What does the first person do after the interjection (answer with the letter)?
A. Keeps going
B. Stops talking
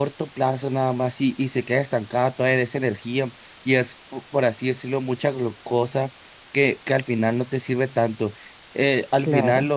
A